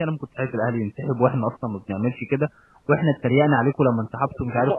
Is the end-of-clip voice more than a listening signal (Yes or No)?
Yes